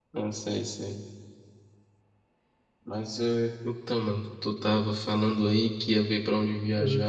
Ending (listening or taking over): listening